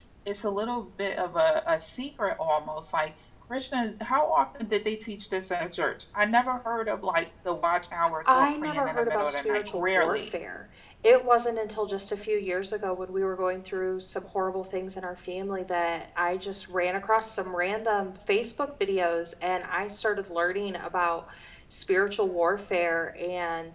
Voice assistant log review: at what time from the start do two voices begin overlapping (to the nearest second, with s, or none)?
8 s